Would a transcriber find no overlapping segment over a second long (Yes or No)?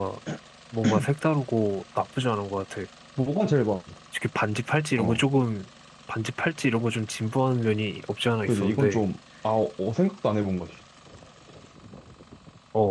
Yes